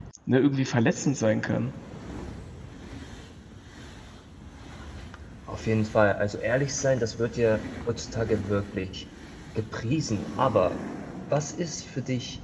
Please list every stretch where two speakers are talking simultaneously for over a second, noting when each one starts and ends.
none

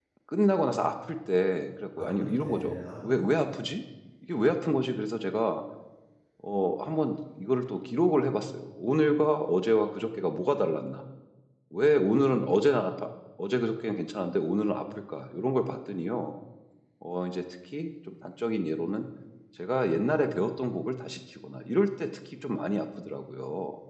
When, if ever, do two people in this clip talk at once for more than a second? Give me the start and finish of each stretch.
2.0-3.5

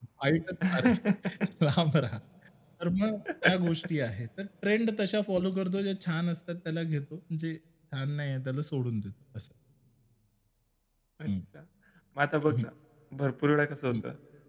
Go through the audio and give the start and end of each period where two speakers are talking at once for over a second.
none

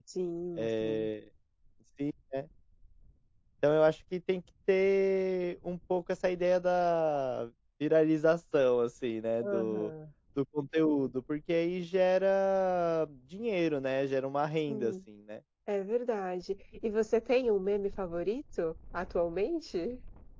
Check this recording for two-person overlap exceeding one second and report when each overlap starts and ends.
none

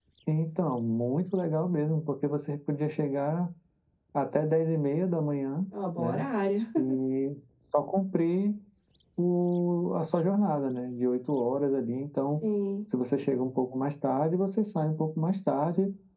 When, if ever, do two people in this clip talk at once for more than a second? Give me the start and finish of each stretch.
none

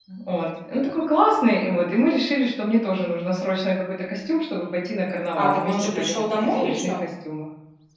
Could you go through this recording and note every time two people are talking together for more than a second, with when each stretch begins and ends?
5.4-6.9

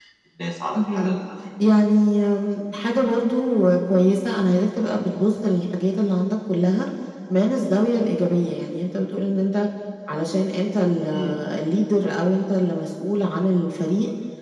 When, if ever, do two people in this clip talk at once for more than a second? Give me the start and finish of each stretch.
none

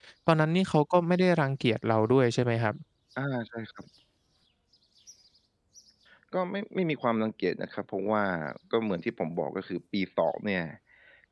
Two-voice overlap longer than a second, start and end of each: none

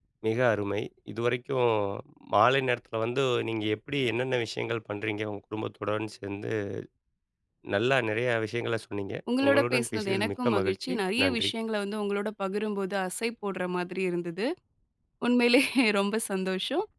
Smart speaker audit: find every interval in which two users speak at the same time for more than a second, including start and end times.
9.4-11.5

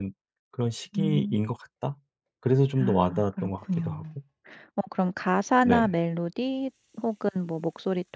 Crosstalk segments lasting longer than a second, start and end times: 2.8-4.0

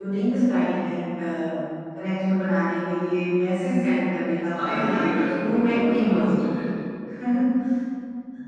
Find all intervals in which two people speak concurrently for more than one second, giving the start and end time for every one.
4.6-6.4

